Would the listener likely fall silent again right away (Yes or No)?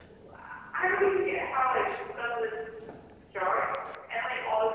Yes